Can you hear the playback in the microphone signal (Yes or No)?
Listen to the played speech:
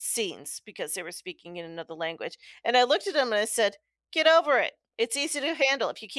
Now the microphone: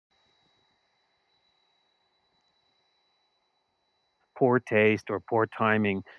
No